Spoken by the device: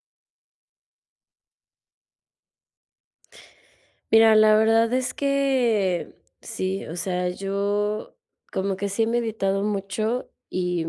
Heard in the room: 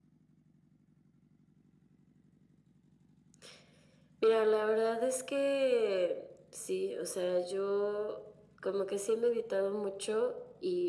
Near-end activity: none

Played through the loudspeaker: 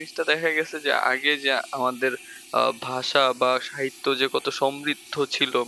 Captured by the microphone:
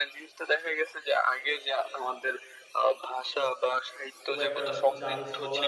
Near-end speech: present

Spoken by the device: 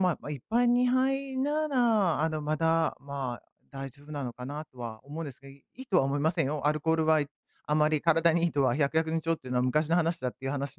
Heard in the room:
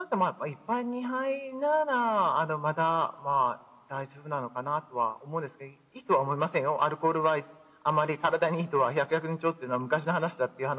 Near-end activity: none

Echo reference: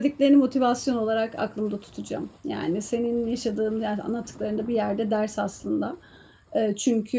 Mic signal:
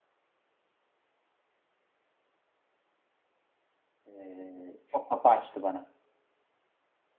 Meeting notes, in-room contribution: present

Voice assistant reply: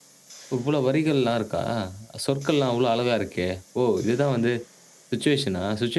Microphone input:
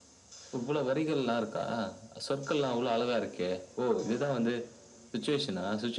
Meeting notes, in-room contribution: none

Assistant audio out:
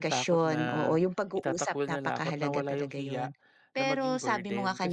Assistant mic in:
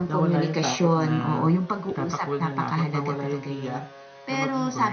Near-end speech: none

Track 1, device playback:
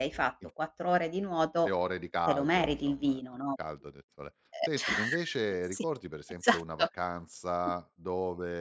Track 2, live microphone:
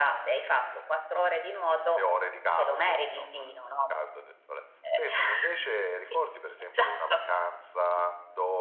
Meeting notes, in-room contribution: none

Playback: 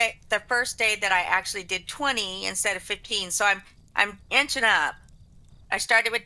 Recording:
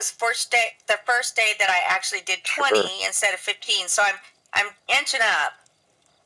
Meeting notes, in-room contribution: present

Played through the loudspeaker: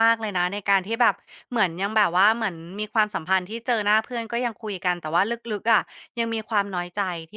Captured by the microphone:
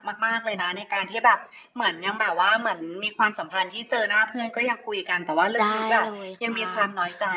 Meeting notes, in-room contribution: present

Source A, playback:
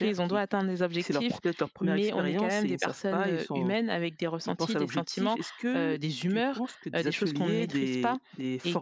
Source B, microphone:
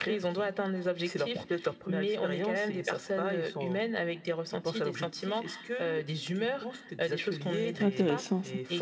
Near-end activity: present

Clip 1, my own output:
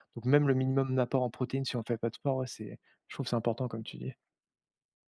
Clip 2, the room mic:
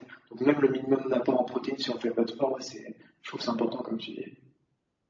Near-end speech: none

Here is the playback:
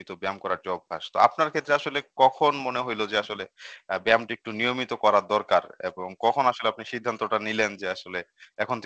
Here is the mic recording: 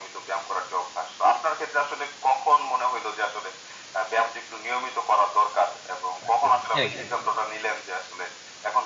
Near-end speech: present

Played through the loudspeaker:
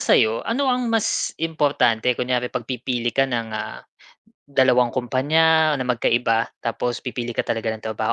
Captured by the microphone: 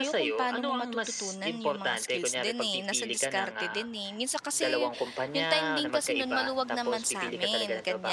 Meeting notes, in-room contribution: present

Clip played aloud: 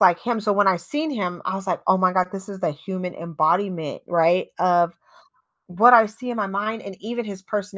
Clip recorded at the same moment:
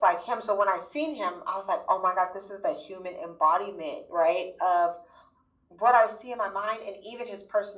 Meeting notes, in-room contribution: none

